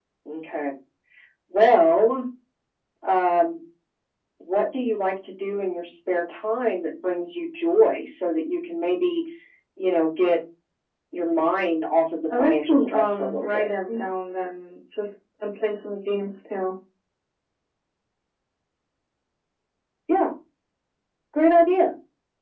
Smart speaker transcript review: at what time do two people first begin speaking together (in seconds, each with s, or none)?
12.3 s